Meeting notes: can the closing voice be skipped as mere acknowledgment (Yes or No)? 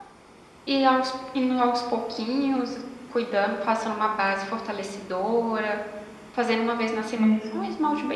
Yes